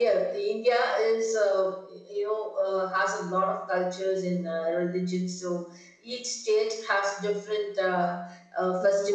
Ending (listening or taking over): taking over